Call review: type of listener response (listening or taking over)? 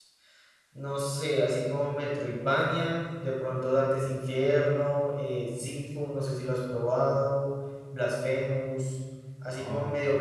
listening